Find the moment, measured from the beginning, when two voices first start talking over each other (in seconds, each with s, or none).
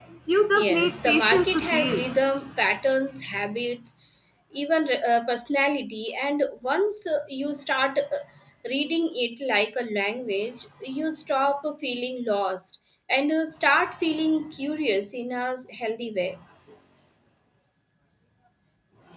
0.5 s